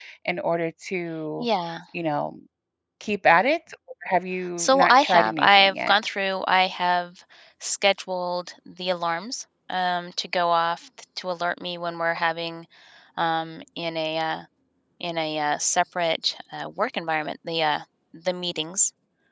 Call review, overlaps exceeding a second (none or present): present